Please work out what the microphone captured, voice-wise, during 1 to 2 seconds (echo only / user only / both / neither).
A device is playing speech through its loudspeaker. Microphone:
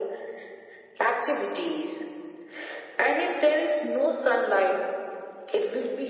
echo only